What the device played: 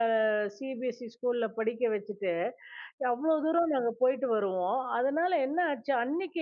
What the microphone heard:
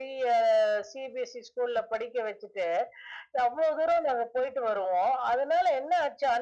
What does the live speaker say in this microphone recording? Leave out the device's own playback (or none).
none